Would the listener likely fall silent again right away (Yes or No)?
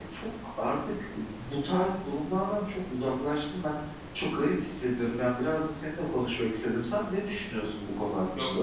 No